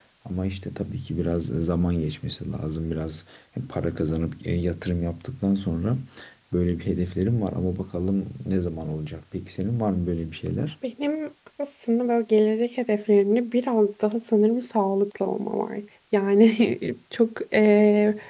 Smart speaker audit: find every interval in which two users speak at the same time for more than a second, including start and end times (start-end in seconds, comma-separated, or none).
none